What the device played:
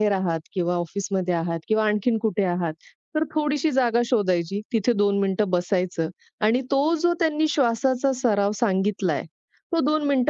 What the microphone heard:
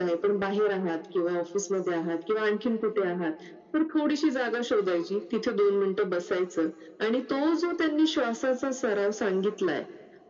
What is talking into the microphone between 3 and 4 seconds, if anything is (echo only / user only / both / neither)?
echo only